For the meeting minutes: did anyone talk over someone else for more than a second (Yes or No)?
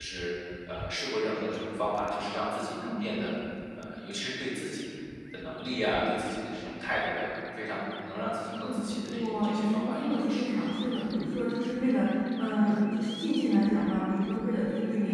Yes